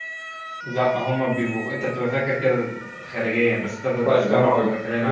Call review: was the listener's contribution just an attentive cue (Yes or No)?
No